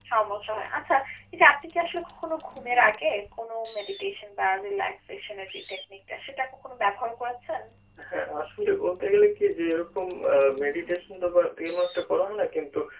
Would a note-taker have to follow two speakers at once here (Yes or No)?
No